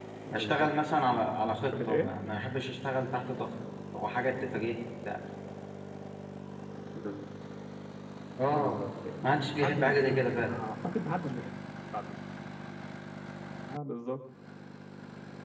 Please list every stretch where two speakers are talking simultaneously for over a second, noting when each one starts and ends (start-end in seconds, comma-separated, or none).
9.2-10.5